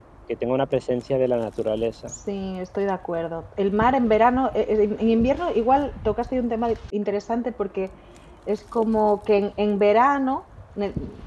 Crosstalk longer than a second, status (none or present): none